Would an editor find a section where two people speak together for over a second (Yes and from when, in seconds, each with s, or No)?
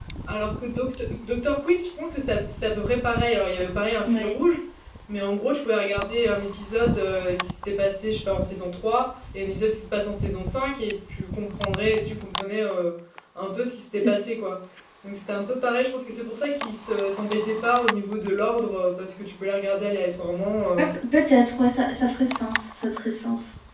No